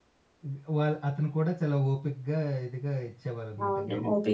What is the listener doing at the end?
taking over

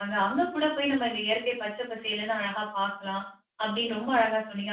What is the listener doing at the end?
listening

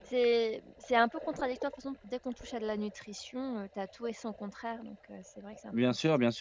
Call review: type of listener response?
taking over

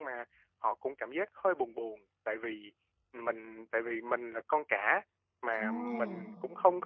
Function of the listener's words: listening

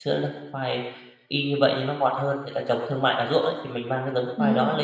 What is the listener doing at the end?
listening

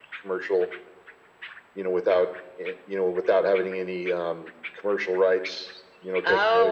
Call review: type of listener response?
taking over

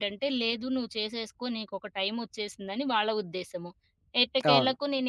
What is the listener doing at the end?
listening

